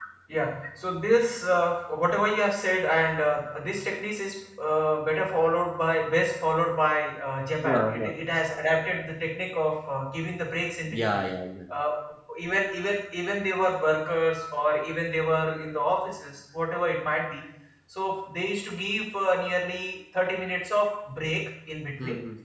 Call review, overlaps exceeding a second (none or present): none